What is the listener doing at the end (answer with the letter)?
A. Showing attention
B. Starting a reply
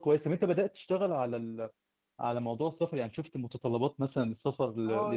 B